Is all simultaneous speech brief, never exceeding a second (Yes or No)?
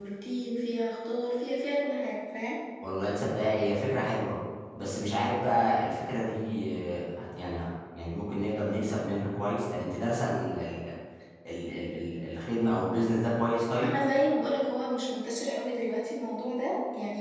Yes